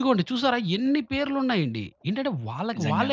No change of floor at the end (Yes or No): Yes